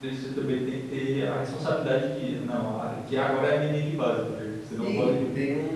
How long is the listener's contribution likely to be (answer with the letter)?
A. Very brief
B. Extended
B